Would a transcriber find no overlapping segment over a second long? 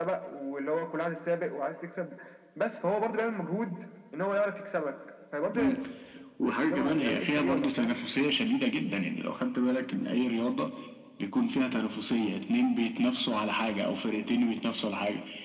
No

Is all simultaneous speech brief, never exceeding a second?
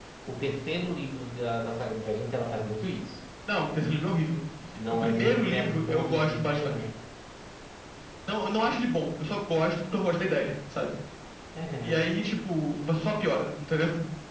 No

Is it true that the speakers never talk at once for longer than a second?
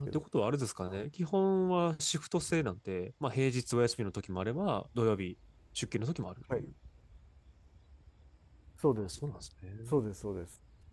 Yes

